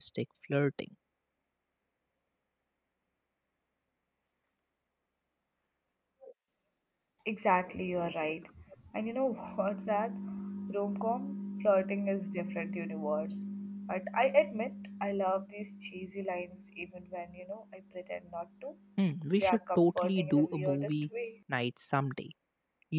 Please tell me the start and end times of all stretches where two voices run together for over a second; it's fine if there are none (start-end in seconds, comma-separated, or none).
19.4-20.9